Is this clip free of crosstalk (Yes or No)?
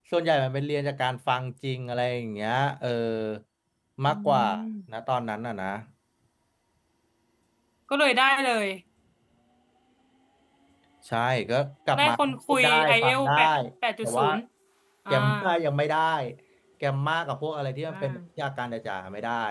No